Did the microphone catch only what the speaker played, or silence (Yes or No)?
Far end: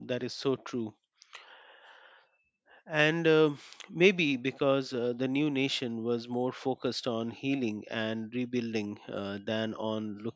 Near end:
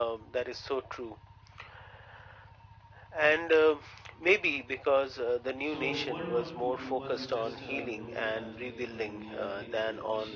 No